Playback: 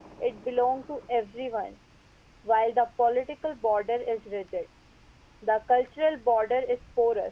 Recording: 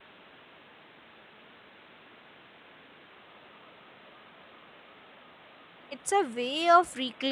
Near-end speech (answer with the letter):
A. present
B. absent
A